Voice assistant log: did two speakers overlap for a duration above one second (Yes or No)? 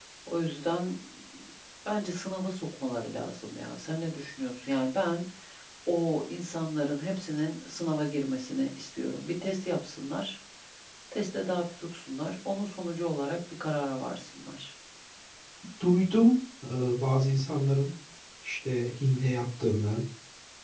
No